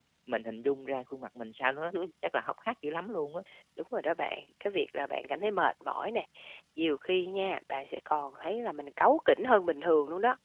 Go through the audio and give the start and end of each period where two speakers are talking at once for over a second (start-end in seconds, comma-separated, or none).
none